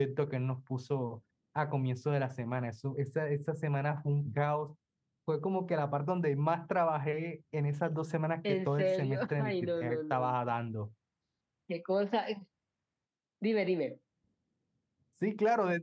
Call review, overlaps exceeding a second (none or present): present